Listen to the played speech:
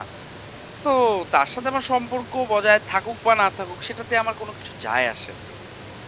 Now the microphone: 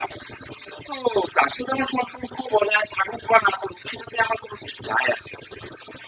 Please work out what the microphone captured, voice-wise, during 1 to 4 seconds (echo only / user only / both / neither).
echo only